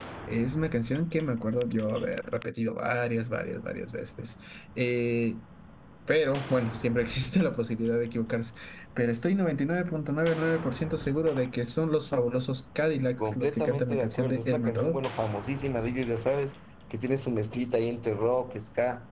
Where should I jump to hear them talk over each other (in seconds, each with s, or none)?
13.2 s